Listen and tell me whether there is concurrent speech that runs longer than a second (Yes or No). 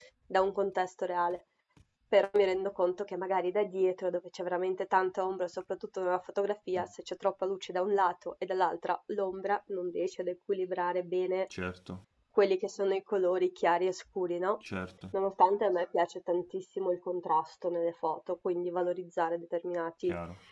No